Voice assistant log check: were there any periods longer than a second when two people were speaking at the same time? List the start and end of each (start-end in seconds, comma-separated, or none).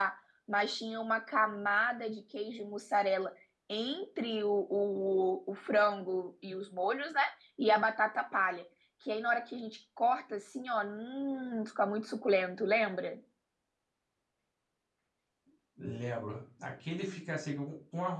none